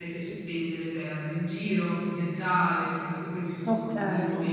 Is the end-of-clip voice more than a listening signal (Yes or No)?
No